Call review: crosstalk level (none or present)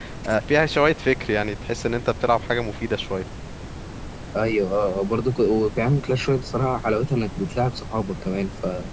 none